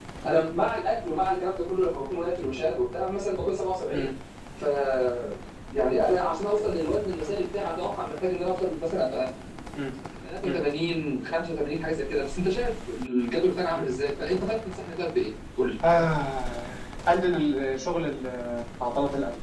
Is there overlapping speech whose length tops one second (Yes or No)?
No